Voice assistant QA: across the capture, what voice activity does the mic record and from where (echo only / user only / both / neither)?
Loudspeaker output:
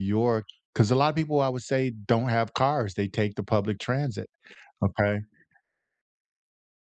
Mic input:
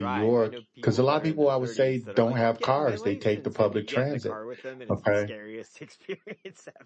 both